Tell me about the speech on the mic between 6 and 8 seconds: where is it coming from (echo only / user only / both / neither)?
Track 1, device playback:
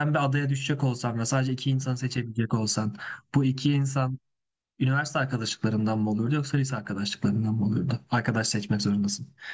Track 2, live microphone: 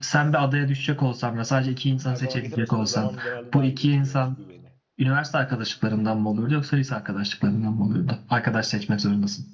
echo only